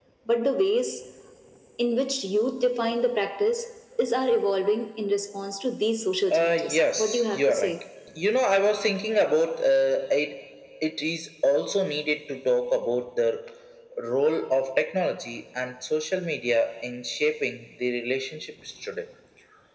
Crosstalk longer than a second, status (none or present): present